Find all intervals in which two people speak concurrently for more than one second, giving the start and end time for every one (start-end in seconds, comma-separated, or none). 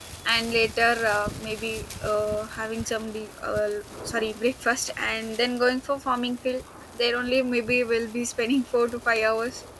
none